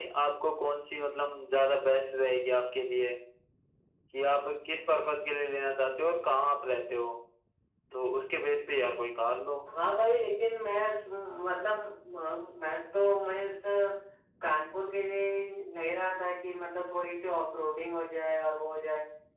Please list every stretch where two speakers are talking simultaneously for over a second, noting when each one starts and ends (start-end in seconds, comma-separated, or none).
none